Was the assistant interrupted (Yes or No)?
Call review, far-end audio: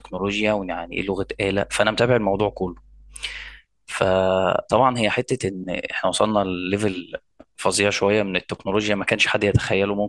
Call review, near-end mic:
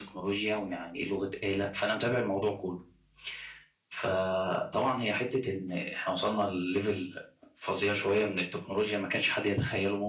No